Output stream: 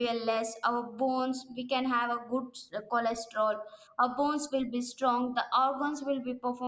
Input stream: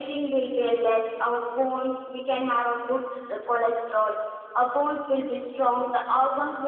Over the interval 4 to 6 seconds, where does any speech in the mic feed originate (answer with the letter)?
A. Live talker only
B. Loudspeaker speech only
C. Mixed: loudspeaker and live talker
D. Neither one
B